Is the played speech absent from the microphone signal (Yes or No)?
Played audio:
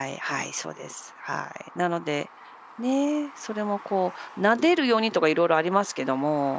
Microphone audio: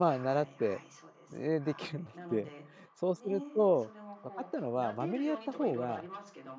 No